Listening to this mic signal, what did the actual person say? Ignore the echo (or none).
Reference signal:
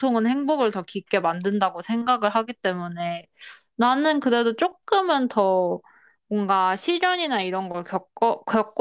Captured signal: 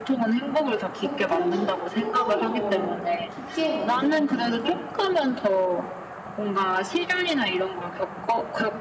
고통은 행복을 더 깊게 만드는 것 같아?